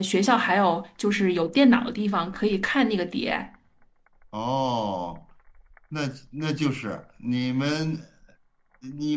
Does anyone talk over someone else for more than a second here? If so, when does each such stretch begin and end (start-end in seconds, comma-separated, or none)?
none